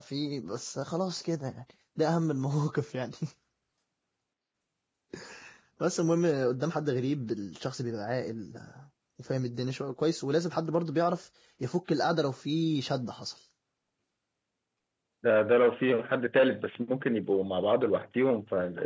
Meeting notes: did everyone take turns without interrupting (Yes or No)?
Yes